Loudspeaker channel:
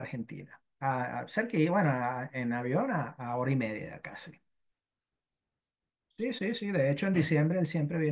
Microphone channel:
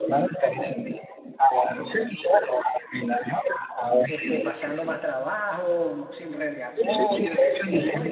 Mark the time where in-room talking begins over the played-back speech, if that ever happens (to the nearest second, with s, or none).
4 s